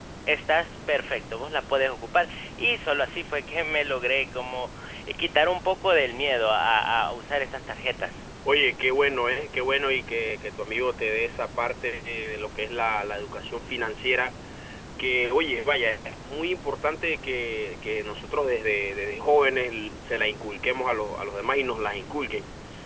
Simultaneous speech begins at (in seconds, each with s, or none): none